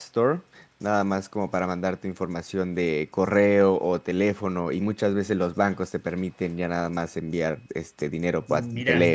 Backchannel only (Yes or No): No